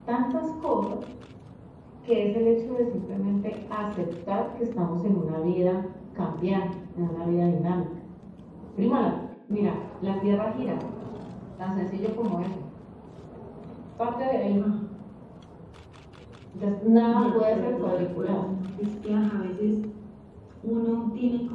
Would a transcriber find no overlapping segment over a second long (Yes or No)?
No